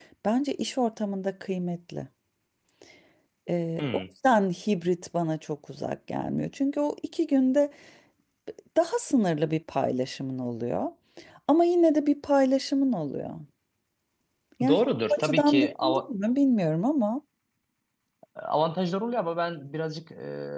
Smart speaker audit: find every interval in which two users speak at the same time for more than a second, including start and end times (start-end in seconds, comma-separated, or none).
14.7-16.1